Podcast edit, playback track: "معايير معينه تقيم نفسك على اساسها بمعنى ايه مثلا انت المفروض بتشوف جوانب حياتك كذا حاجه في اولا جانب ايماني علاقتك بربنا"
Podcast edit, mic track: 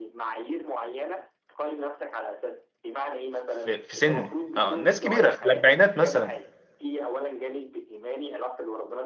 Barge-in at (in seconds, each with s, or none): 3.5 s